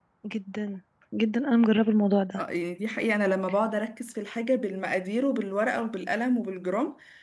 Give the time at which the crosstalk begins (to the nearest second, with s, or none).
none